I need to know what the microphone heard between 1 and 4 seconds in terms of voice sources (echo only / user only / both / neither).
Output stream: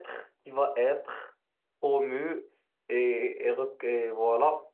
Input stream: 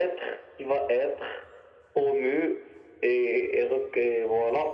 echo only